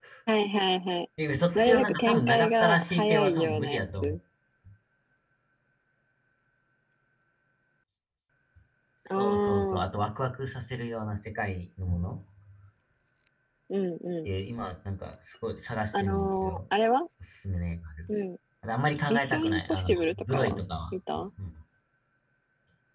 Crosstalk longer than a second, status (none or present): present